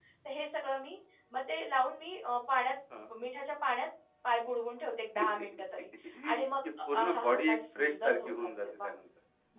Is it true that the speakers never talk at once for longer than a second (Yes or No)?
No